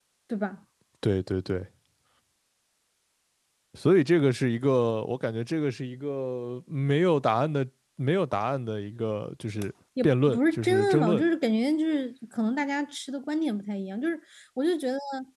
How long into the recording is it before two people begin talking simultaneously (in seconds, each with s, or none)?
10.0 s